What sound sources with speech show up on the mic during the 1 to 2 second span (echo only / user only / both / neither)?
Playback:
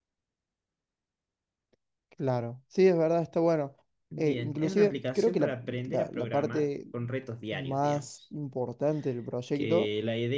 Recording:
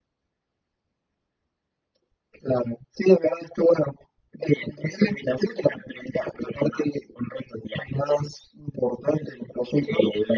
neither